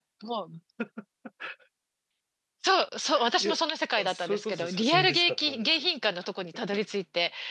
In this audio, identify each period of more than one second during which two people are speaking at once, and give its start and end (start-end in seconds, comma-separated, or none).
4.0-5.9